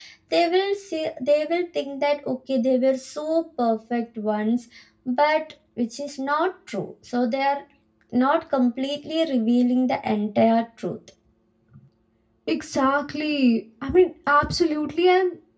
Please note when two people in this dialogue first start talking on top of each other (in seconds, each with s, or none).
none